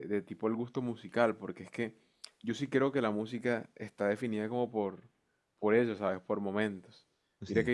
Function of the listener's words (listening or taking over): listening